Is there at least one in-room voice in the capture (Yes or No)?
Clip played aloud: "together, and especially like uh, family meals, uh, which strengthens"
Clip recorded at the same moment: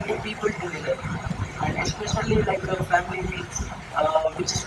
No